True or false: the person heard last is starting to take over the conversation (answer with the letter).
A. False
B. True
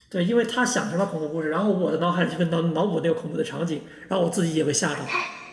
B